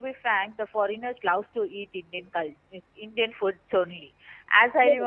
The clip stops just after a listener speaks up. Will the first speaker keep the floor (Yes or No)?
Yes